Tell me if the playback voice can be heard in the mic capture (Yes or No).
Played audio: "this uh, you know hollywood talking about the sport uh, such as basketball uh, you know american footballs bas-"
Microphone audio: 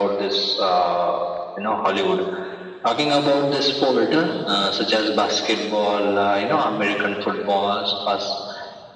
Yes